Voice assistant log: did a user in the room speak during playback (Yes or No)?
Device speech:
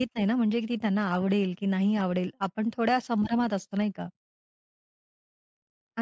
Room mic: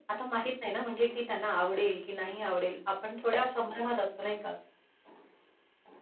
No